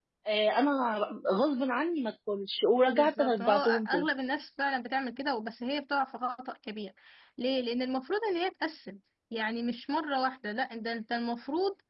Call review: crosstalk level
present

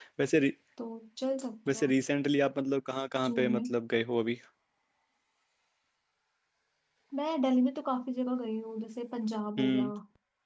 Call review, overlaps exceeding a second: none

